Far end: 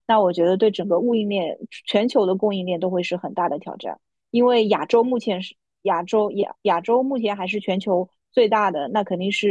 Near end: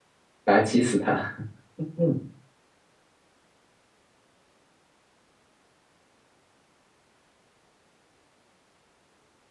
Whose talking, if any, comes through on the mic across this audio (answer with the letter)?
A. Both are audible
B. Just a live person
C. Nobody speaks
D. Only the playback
B